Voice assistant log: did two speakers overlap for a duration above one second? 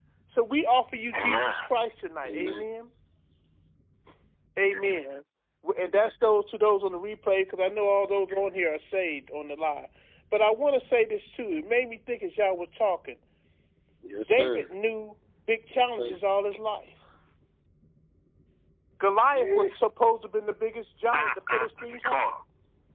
Yes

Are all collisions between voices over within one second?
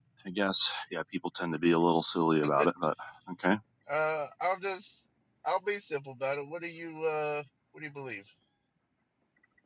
Yes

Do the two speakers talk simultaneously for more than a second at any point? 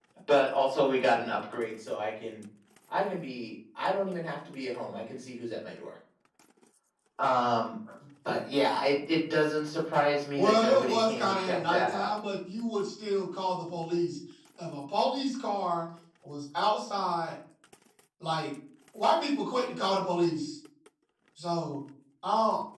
Yes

